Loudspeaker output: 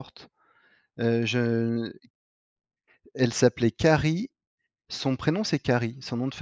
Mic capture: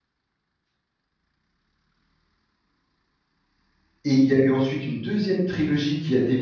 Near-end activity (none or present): present